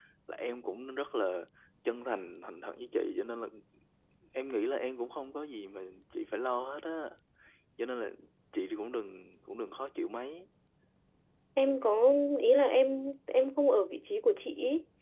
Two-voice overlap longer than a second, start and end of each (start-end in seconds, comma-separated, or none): none